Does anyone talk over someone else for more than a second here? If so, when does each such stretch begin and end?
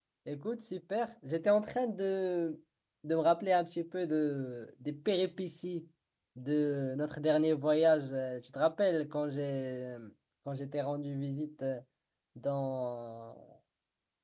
none

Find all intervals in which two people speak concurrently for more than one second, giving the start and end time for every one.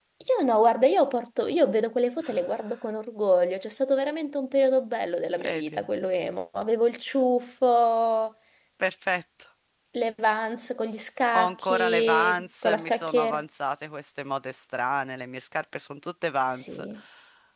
11.3-13.4

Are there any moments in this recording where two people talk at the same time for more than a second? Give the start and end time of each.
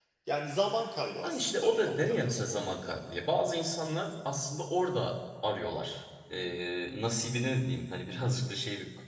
1.2-2.9

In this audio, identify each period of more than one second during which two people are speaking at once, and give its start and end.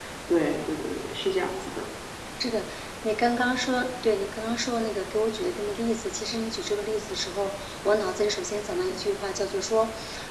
none

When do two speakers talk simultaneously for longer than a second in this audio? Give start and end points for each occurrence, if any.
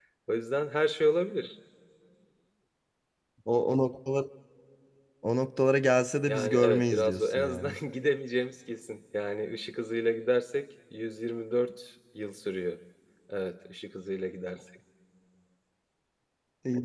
6.3-7.7

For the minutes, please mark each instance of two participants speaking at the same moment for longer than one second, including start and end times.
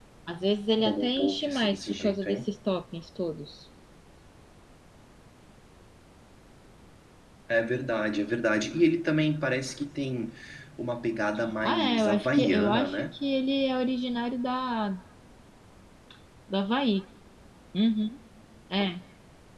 0.8-2.5, 11.6-13.1

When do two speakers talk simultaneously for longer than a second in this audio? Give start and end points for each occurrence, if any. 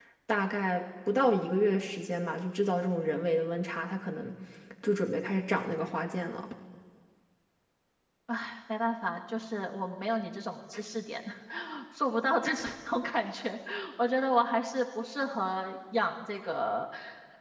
none

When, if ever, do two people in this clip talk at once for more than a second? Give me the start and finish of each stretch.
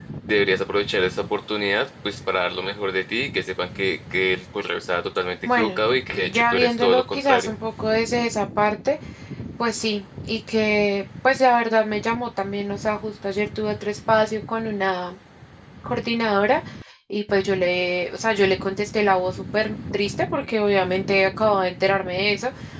6.3-7.5

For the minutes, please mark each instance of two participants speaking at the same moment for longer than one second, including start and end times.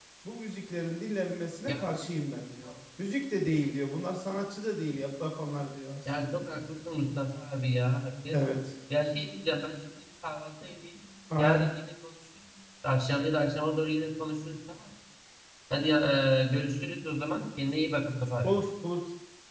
none

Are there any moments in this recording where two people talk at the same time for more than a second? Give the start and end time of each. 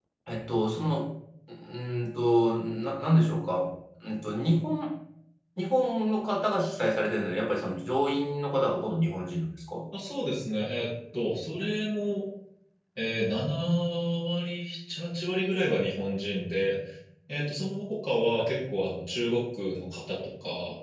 none

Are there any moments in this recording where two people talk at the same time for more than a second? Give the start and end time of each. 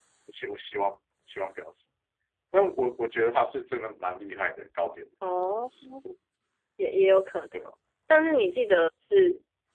none

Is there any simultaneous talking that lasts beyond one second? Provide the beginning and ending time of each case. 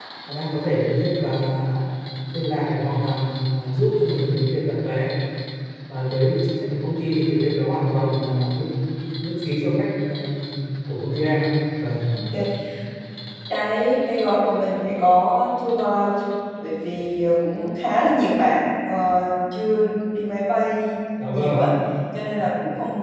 none

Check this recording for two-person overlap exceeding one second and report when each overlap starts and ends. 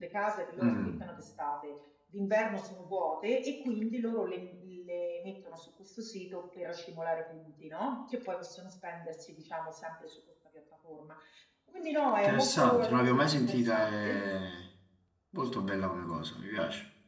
12.2-14.2

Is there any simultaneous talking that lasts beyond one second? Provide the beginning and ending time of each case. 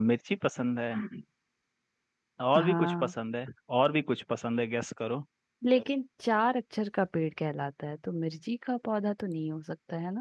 none

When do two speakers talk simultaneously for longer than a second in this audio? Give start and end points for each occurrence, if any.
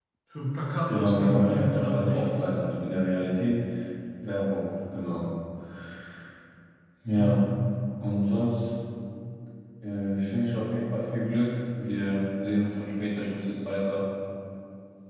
0.9-2.4

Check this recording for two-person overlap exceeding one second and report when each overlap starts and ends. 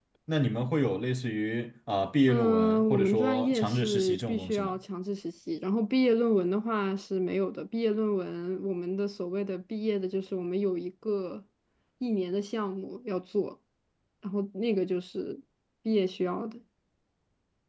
2.3-4.7

